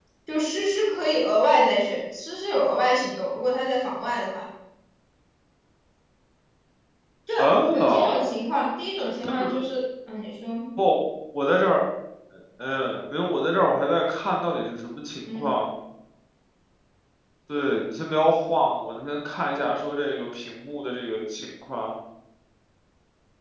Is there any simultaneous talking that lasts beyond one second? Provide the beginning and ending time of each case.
none

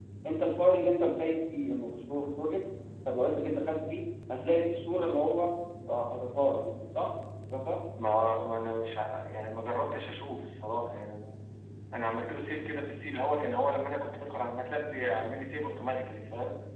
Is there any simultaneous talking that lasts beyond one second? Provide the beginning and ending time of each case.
none

